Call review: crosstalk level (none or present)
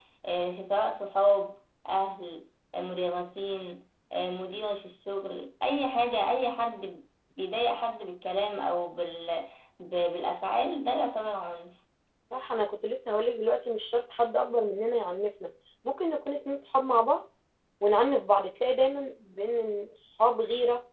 none